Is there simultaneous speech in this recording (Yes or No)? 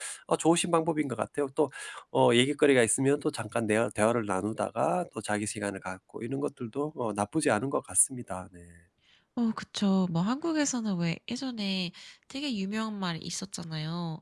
No